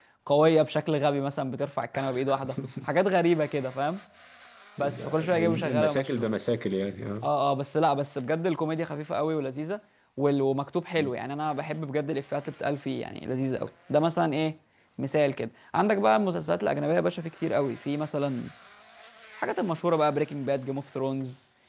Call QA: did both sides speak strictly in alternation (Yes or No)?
No